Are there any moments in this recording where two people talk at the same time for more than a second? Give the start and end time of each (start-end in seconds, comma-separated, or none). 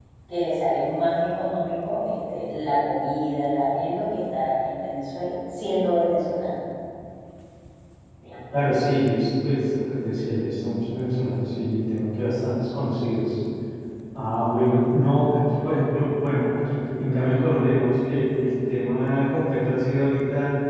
none